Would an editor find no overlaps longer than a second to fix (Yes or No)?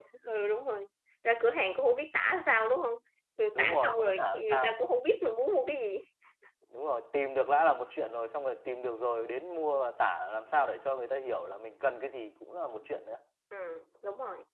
No